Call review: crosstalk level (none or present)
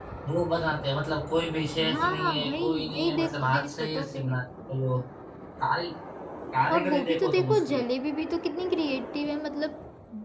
present